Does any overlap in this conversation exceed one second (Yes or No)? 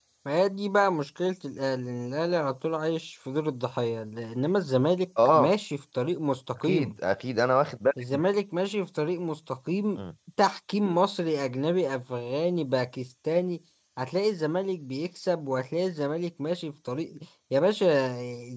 No